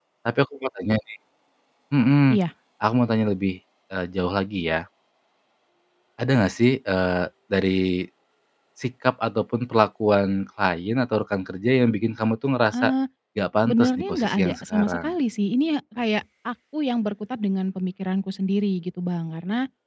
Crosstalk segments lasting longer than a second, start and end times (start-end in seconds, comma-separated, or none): 13.6-15.1